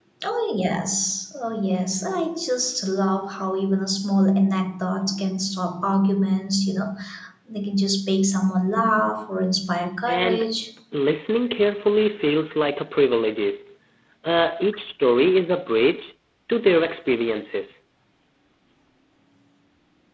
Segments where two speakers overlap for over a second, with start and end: none

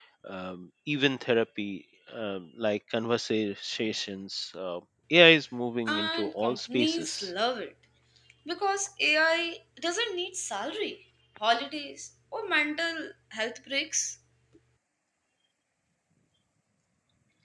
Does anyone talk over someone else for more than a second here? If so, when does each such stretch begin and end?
5.9-7.3

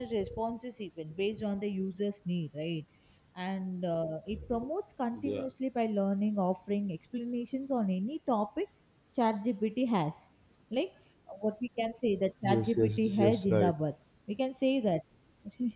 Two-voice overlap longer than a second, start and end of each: 12.5-13.7

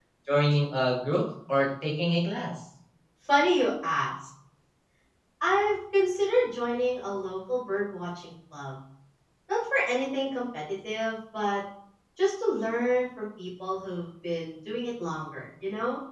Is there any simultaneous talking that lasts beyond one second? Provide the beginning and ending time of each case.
none

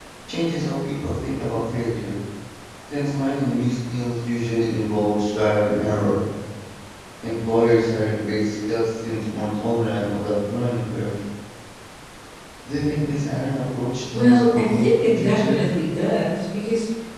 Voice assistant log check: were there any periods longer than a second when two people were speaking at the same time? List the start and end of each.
14.1-15.6

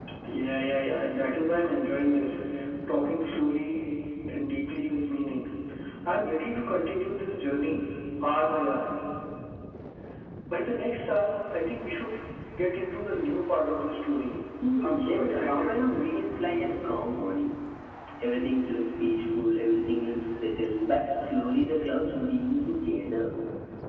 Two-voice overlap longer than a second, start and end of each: 14.8-16.1

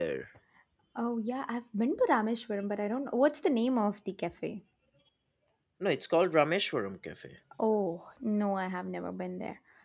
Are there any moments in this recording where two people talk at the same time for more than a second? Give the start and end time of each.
none

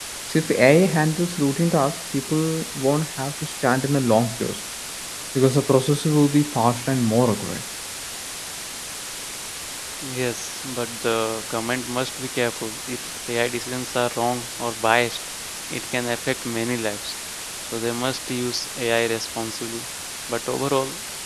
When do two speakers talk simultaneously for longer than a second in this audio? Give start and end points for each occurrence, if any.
none

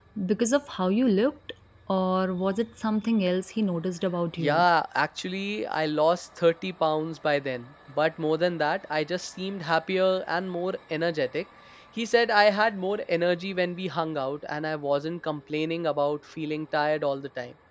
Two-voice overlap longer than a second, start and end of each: none

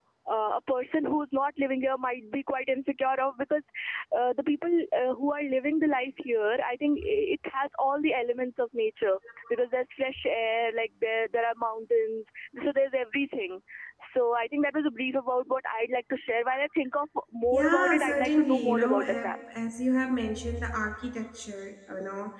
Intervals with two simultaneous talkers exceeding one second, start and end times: 17.5-19.3

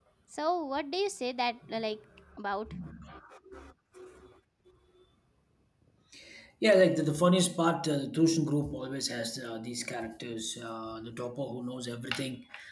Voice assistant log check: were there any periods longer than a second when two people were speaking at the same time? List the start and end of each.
none

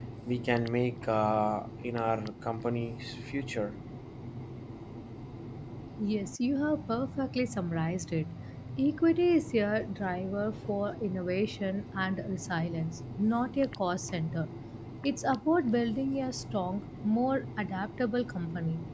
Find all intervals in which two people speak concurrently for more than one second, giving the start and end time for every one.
none

